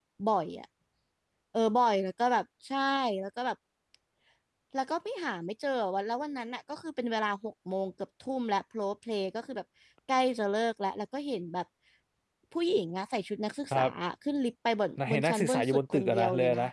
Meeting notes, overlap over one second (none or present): present